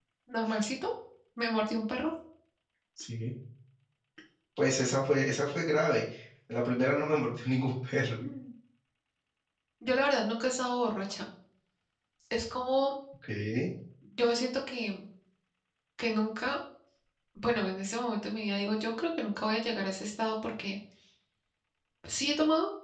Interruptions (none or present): none